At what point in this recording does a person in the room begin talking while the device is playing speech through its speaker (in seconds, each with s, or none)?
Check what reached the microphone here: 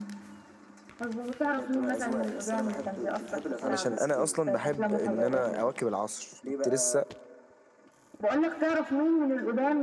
3.6 s